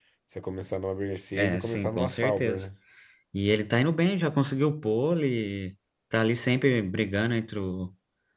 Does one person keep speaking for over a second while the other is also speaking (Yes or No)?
Yes